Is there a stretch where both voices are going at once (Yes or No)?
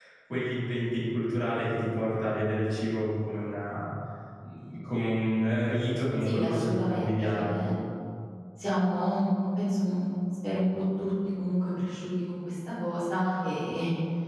Yes